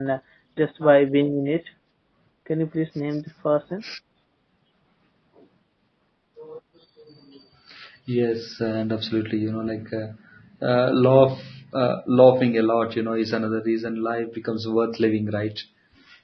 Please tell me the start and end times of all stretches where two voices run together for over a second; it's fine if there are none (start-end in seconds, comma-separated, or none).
none